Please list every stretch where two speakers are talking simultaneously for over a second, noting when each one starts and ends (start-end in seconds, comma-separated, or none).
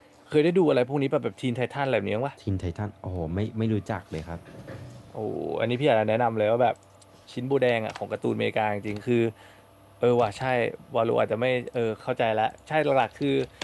none